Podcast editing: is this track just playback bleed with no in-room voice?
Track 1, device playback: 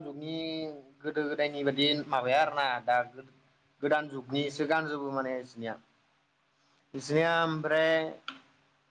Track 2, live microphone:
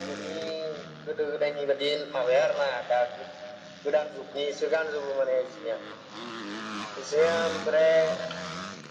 Yes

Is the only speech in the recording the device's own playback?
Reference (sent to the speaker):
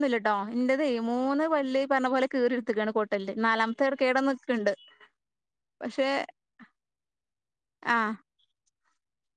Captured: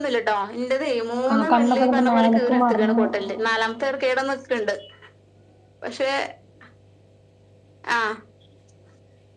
No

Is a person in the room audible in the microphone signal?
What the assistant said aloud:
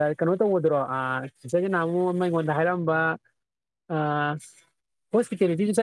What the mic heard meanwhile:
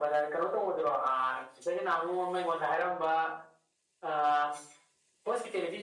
No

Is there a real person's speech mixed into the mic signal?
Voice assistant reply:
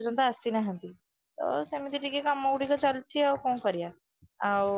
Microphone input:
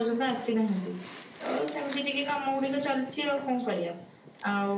No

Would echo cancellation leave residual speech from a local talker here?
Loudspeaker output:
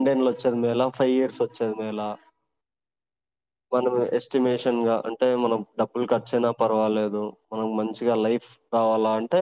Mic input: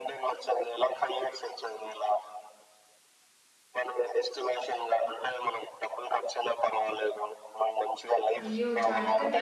Yes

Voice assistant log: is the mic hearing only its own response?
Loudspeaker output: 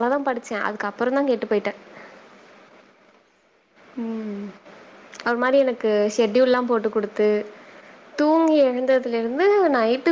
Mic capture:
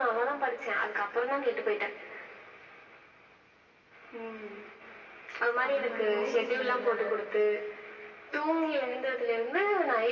No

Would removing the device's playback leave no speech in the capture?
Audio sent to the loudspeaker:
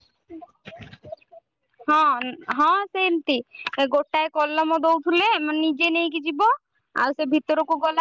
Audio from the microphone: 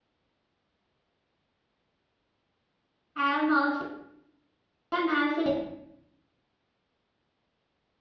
No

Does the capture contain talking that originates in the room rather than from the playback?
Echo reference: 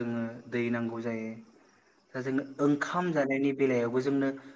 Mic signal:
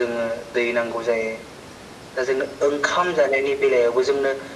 No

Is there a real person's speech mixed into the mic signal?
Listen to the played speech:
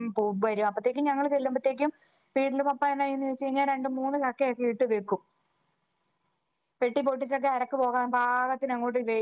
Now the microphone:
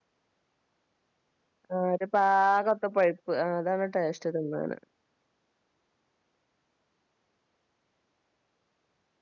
Yes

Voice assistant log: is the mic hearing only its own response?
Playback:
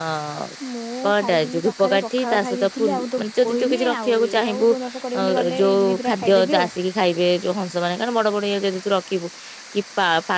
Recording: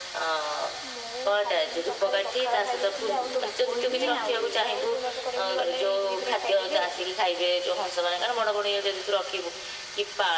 No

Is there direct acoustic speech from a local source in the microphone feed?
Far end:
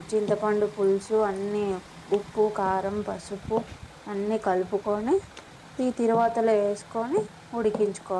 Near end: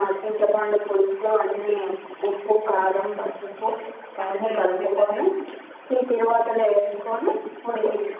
Yes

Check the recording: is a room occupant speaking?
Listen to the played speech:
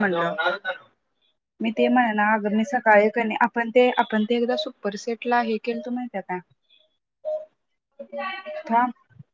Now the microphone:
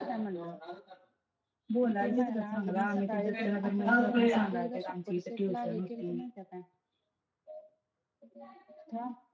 Yes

